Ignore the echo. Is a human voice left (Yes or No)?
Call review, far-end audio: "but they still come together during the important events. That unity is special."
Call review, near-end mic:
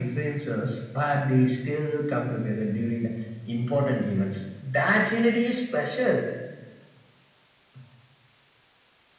No